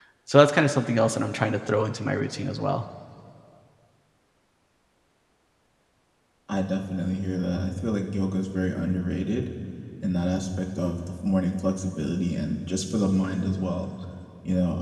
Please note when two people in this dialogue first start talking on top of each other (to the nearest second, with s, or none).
none